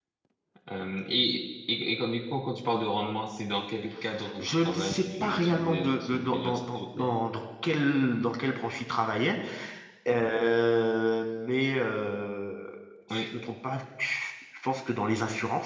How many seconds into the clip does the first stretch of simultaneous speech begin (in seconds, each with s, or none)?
4.4 s